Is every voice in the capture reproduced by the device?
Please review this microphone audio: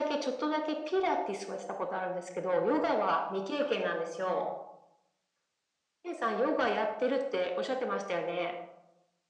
Yes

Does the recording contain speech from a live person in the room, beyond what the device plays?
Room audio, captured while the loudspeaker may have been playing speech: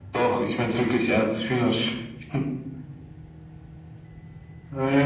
No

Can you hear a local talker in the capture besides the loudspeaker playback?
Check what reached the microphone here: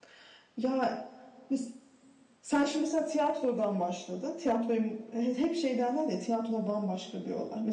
Yes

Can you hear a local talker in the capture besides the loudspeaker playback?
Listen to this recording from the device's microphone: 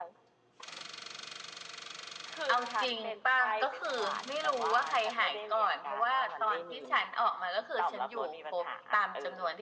No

